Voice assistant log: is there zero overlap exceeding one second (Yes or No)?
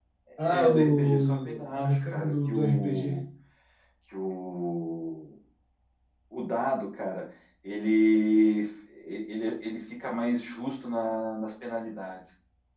No